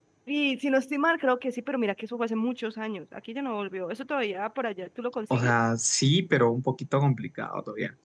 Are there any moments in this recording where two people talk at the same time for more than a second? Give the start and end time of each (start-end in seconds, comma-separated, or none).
none